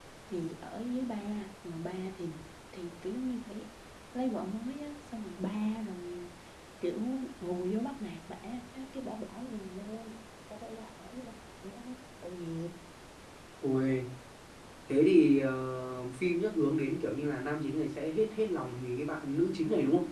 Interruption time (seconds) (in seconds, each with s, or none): none